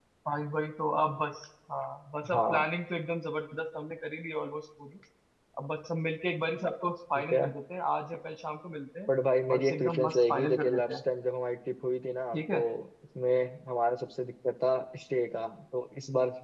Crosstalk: present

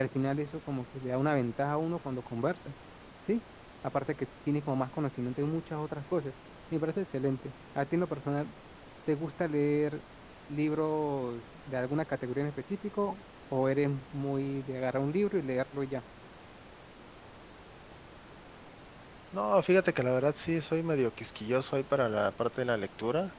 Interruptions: none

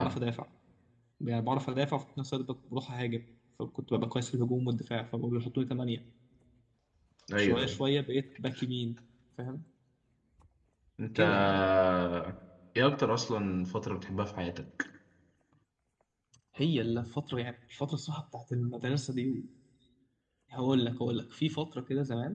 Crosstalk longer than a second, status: none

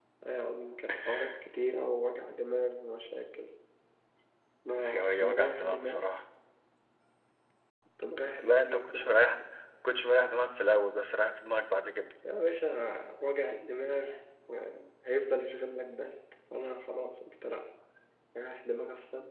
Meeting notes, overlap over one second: present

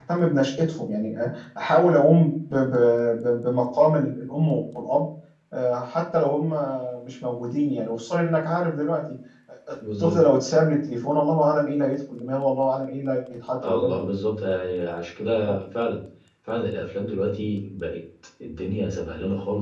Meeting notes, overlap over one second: none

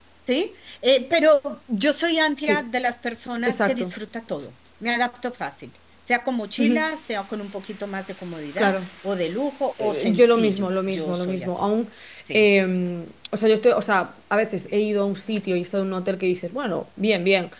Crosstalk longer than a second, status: present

